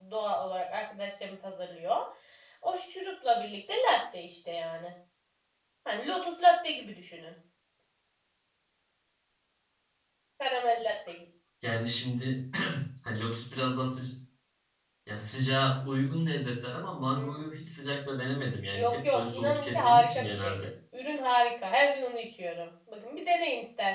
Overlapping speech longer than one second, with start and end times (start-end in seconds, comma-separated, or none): 18.7-20.6